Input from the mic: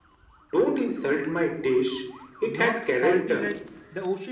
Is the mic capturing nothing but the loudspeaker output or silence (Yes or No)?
No